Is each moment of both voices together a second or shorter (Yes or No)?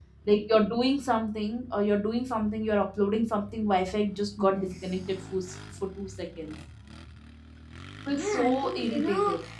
No